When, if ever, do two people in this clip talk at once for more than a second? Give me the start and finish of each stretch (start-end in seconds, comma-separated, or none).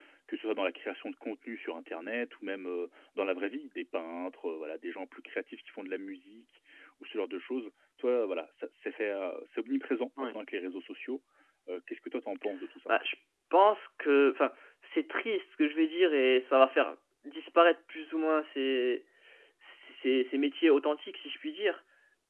none